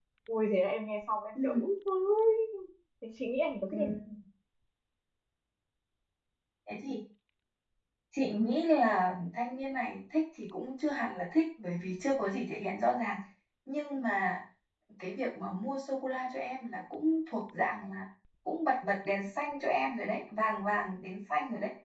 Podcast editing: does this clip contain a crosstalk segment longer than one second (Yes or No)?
No